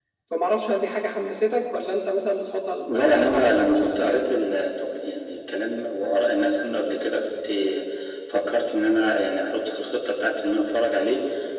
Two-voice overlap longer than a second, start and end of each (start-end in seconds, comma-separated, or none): 2.9-4.2